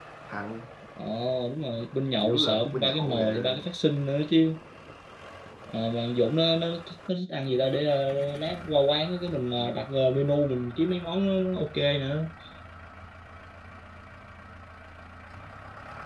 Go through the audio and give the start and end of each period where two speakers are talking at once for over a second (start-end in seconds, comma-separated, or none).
2.2-3.6